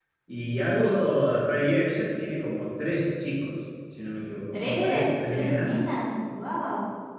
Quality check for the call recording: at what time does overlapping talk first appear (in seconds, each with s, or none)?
4.5 s